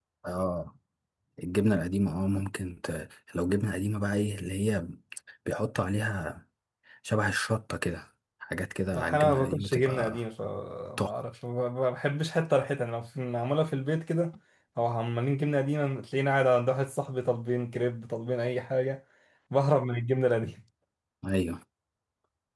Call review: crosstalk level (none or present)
present